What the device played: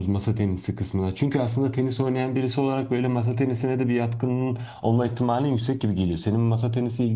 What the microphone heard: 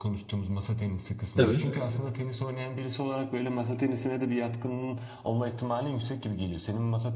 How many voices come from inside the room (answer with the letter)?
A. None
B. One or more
B